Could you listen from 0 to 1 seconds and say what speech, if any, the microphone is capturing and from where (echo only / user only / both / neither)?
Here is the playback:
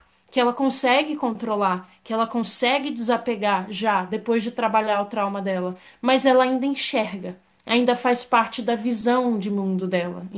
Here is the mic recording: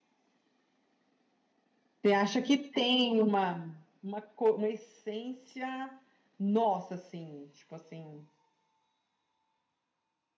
neither